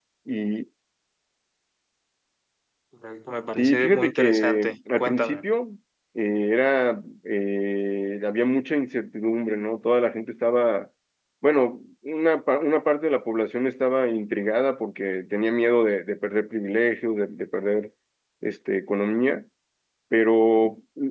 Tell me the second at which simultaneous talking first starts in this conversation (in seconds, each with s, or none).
3.6 s